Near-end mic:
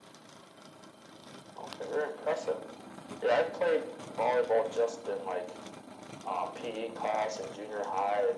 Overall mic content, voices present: echo only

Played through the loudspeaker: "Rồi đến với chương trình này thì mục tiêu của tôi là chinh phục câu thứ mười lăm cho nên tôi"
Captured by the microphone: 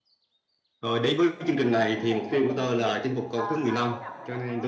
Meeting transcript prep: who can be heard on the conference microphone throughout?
both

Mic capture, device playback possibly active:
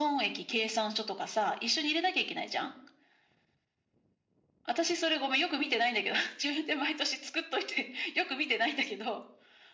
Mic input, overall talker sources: echo only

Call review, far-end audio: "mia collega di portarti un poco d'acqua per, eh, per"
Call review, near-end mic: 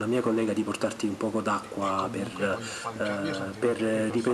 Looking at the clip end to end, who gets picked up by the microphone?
both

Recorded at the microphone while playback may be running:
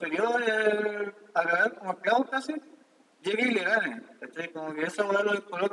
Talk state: echo only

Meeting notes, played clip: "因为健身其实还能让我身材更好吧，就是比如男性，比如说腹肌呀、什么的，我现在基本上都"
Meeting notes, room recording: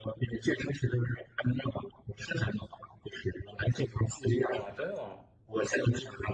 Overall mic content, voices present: both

